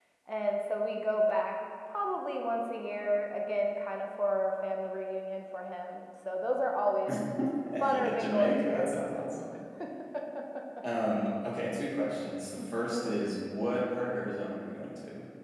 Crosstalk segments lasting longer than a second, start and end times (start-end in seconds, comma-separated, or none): 7.9-9.3